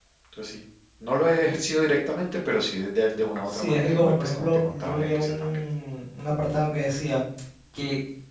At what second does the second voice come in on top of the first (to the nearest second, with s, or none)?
3 s